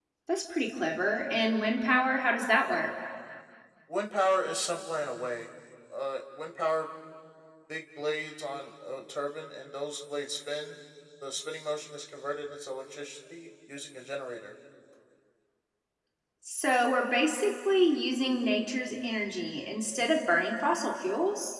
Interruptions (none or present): none